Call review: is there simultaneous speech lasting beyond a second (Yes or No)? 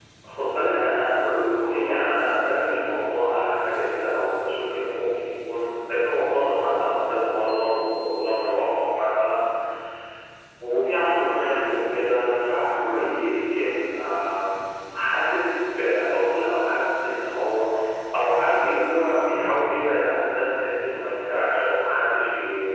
No